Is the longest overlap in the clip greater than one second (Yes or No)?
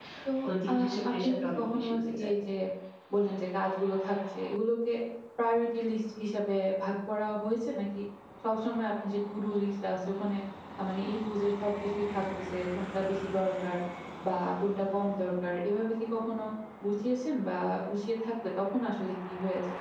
Yes